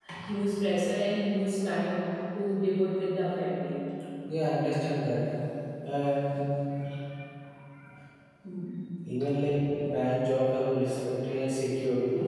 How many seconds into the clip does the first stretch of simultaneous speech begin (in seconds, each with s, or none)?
none